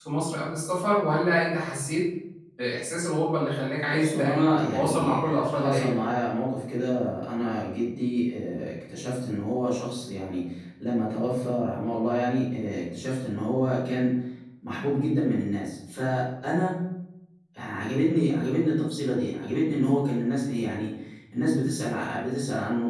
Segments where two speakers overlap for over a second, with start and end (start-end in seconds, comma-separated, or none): 3.9-6.0